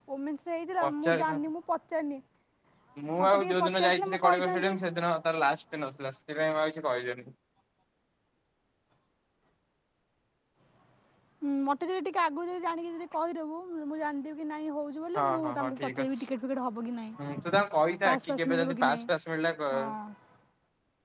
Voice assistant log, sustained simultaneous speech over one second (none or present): present